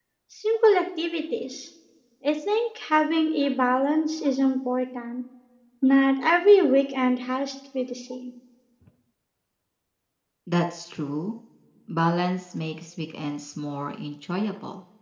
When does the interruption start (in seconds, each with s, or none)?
none